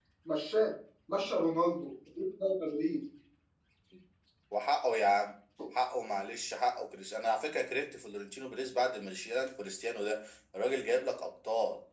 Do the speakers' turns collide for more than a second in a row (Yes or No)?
No